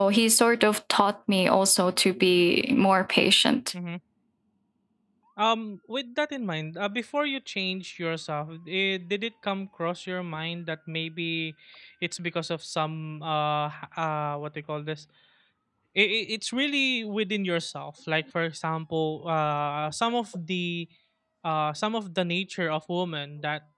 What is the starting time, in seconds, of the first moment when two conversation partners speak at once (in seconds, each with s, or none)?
none